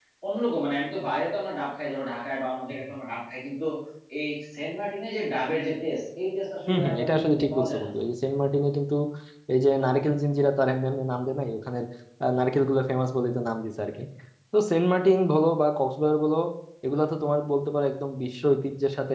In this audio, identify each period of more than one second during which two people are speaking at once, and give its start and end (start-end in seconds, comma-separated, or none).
6.7-7.9